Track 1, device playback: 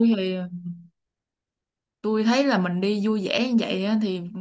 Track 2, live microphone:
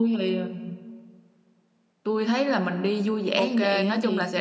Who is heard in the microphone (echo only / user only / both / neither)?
both